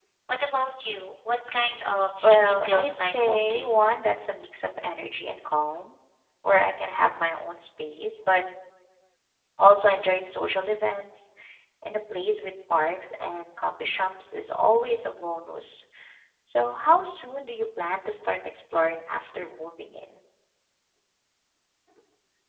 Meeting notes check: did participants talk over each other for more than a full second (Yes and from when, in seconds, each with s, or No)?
Yes, from 2.2 s